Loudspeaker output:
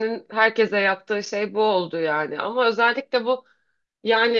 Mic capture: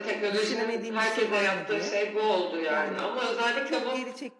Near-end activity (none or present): present